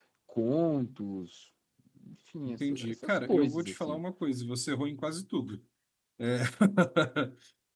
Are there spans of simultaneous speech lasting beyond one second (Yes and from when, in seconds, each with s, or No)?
Yes, from 2.7 s